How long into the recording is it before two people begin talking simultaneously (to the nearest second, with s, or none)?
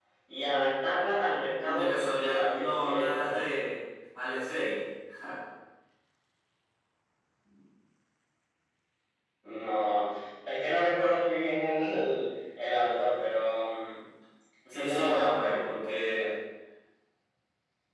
2 s